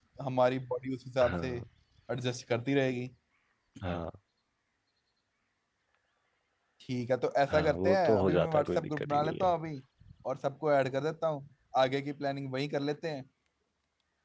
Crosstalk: present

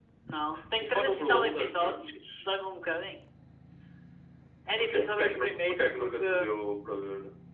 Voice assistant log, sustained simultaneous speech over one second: present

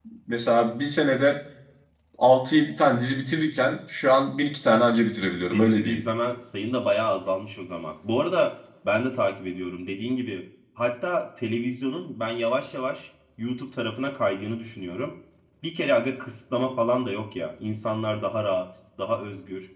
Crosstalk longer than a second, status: none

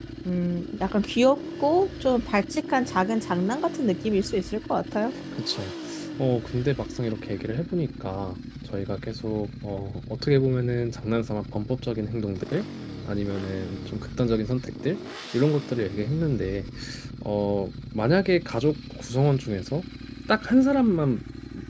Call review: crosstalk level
none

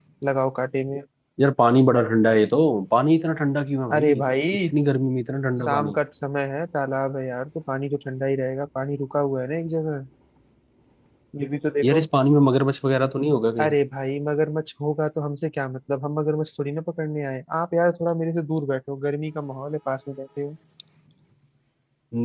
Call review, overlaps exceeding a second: none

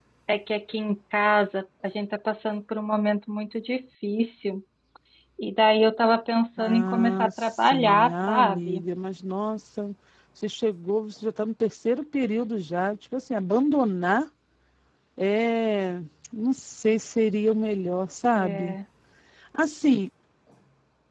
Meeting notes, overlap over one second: present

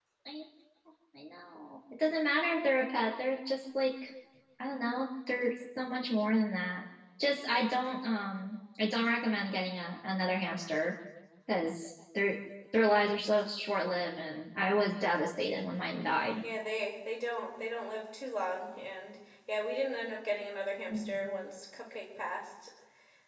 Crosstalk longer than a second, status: none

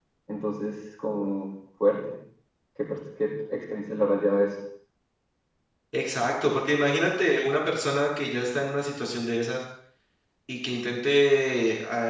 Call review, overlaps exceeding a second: none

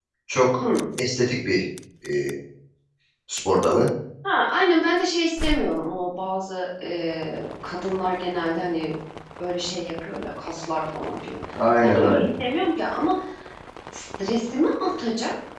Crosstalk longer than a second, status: none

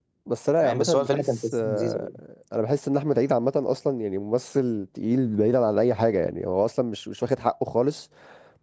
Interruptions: present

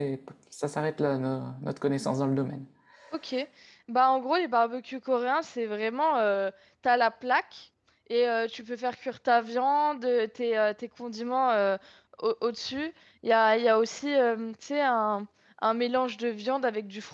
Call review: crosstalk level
none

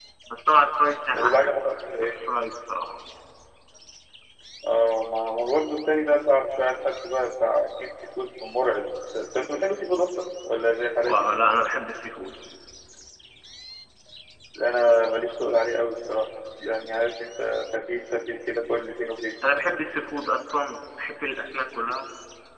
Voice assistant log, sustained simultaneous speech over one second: none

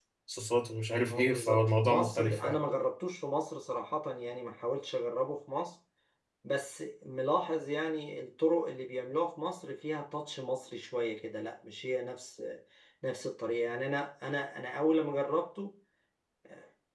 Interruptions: present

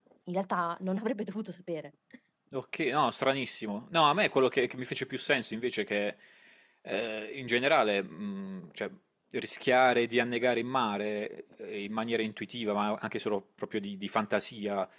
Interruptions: none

